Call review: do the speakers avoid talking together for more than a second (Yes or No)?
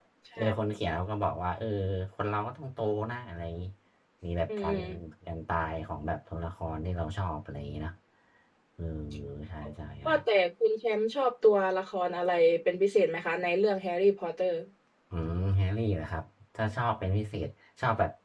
Yes